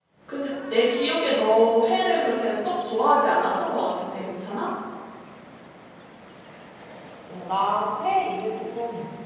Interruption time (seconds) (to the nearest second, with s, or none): none